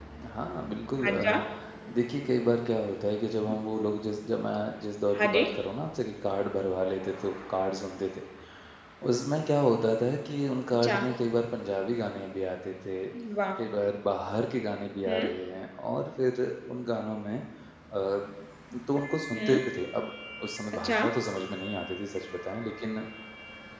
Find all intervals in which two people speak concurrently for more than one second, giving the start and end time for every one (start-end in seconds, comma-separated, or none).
none